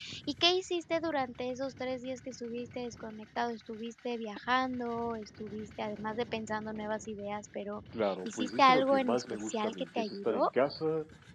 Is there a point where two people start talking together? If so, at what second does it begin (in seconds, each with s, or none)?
8.2 s